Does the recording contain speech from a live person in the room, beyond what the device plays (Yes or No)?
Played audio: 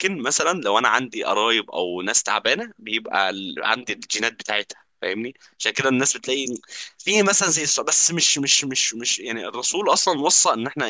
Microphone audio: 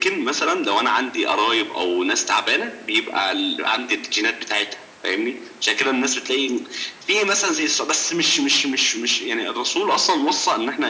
No